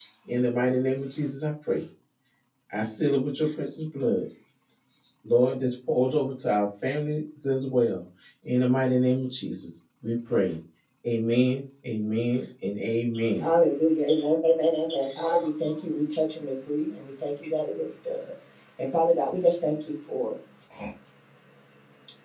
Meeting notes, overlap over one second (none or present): none